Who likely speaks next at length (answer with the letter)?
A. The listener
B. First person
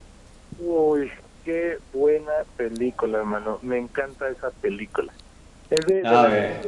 B